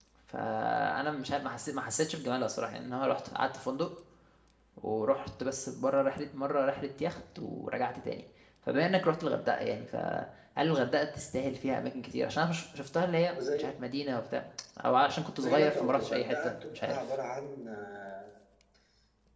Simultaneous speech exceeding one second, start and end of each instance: 15.4-17.0

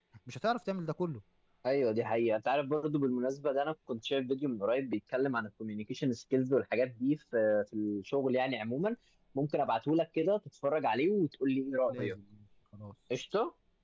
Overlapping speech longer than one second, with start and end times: none

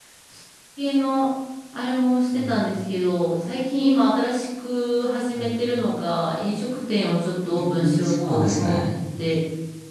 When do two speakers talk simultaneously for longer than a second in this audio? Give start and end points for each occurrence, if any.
7.5-8.7

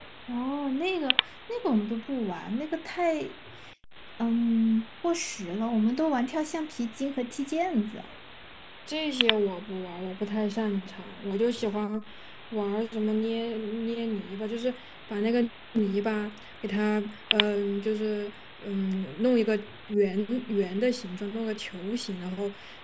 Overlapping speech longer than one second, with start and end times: none

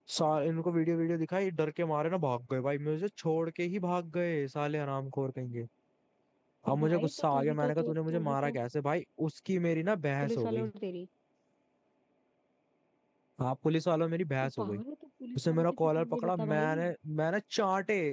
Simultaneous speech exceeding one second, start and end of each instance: 6.7-8.6, 15.4-16.8

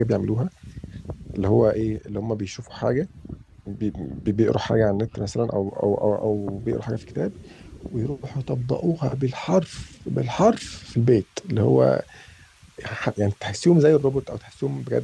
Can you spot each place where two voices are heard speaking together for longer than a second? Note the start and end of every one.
none

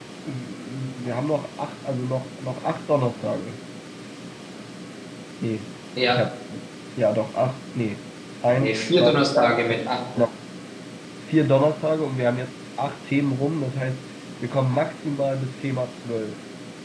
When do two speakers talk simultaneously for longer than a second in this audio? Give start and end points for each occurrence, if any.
8.6-9.8

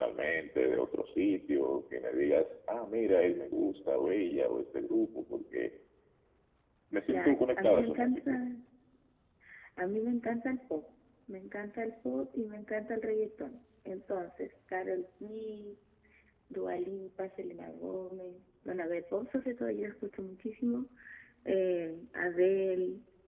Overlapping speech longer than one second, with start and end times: 7.1-8.3

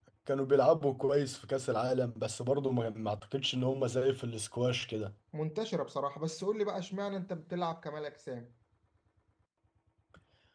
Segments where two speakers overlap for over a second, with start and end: none

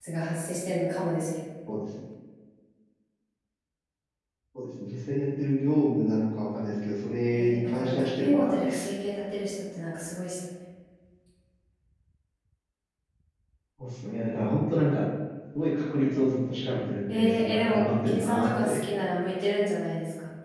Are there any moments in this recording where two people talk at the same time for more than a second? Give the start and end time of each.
7.3-8.9, 17.1-18.8

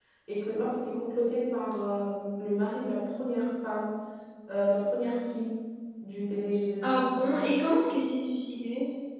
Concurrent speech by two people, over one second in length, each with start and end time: none

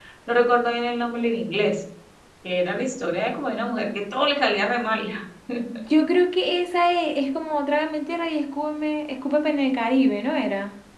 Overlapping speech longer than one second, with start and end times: none

